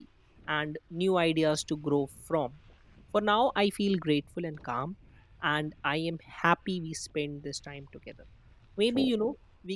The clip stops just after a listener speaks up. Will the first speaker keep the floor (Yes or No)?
Yes